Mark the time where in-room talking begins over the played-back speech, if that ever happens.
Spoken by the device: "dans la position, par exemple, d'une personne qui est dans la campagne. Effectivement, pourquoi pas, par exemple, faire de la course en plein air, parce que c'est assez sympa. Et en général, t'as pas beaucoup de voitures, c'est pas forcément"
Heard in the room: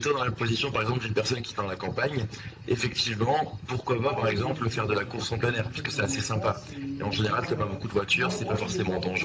4.0 s

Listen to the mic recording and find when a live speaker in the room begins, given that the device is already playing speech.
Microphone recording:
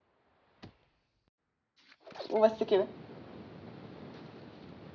2.3 s

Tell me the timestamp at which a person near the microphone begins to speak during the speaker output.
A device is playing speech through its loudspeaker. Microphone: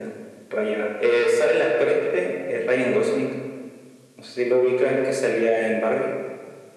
none

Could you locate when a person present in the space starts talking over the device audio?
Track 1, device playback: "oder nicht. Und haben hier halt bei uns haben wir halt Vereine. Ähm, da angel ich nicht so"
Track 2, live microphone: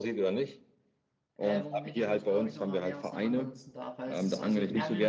1.4 s

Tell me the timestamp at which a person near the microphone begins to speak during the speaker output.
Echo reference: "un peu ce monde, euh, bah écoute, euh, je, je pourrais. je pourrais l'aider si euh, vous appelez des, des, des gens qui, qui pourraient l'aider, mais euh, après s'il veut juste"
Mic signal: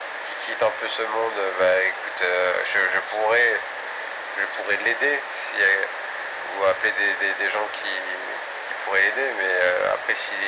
none

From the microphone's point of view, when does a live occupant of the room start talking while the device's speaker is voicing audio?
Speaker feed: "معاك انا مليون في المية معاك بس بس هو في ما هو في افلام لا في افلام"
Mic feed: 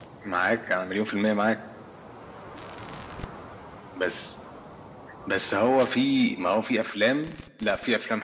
none

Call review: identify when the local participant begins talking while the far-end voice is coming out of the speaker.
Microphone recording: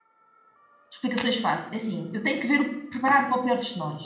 0.9 s

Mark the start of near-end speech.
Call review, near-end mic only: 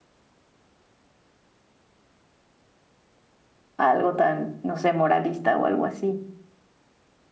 3.8 s

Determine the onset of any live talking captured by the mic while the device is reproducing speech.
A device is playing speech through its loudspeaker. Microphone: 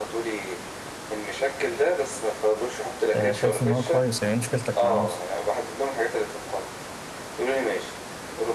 3.1 s

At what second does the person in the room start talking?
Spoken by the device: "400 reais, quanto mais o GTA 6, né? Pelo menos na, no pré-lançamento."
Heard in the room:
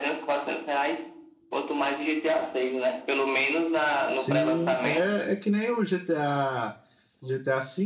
4.1 s

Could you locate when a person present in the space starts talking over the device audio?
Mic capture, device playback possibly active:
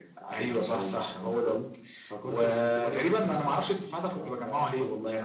none

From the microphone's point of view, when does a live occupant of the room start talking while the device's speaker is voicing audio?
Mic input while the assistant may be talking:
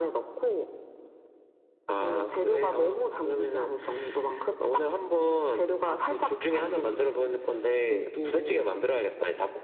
6.6 s

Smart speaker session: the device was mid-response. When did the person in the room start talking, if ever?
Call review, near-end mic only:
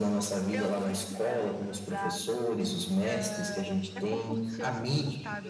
0.5 s

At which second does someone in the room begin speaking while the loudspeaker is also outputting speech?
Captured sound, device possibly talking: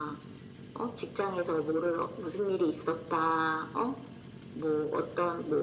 none

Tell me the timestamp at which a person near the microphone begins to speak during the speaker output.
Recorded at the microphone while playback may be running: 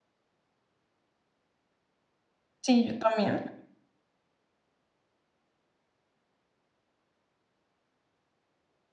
2.6 s

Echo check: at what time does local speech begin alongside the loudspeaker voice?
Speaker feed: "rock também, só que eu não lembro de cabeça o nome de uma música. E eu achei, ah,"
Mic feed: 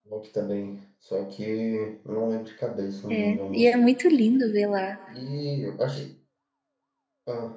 3.1 s

